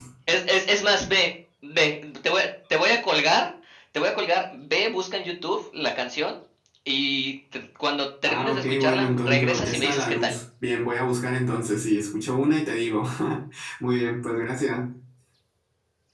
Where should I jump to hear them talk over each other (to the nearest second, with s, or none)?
8 s